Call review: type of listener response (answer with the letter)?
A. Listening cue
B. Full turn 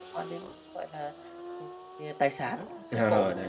B